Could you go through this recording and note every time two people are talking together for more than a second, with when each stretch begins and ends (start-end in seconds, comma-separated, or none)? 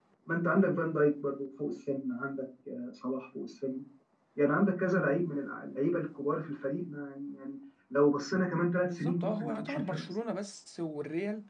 8.8-10.1